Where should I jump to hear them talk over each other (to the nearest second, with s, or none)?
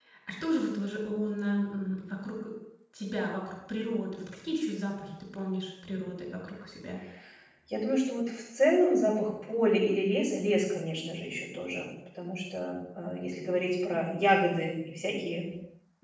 none